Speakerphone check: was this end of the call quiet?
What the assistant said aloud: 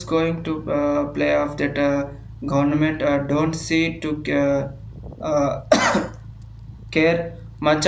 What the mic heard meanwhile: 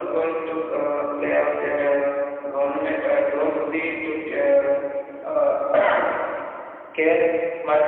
Yes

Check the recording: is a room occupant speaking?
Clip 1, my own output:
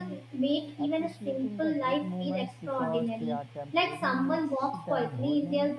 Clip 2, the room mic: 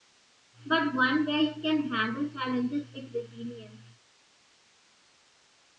Yes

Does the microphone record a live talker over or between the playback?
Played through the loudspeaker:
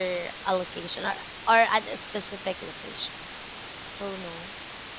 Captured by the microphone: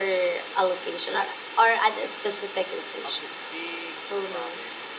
Yes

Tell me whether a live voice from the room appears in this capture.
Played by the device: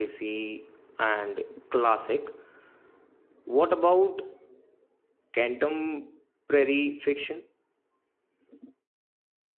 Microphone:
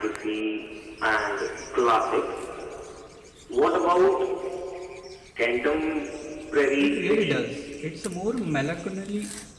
Yes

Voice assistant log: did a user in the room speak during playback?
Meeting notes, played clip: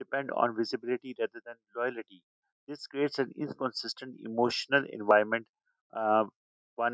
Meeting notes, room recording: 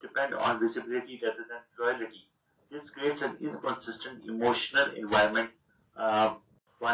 No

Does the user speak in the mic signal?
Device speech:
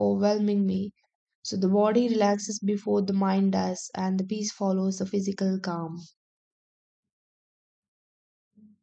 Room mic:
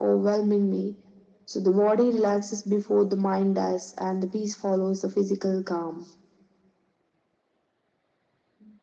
No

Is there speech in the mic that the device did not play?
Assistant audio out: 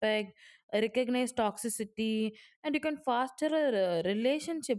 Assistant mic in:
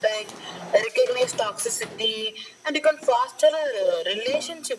No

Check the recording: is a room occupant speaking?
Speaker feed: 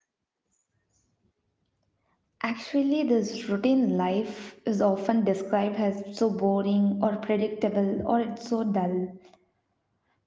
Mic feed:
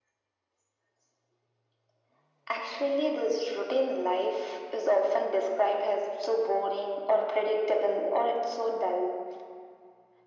No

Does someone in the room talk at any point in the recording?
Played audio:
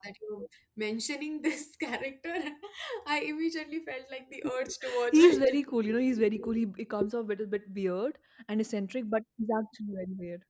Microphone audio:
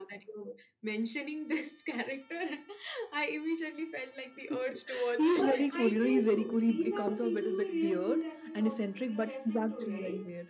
Yes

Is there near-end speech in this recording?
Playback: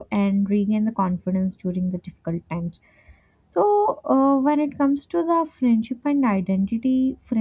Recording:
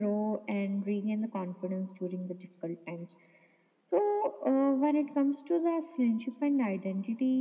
No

